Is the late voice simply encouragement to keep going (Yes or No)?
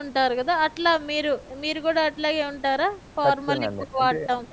No